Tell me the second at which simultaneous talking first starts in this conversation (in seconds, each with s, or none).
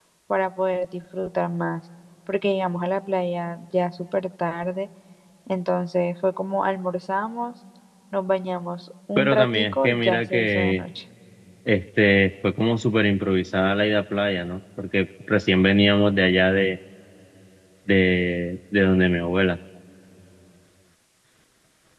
9.2 s